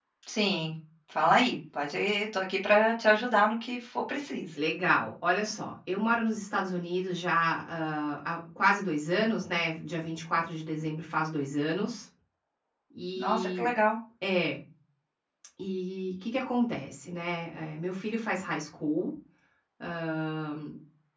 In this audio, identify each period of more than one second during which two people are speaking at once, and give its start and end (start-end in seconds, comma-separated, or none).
none